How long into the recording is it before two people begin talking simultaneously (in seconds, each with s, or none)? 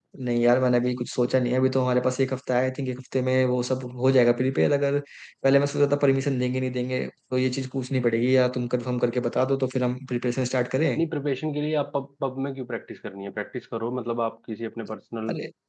none